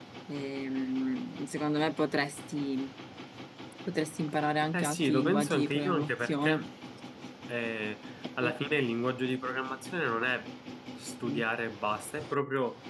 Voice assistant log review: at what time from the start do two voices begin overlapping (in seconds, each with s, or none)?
4.7 s